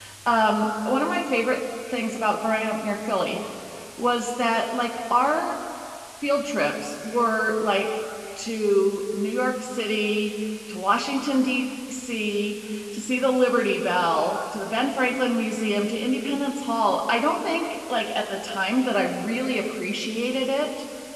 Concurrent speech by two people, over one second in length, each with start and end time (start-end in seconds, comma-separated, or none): none